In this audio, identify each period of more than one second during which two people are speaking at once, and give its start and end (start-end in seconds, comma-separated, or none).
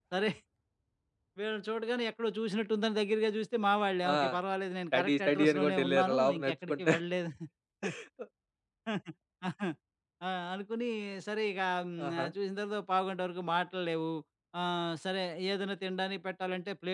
4.9-6.9